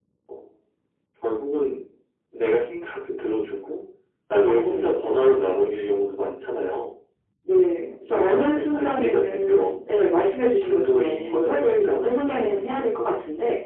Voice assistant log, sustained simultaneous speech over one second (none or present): present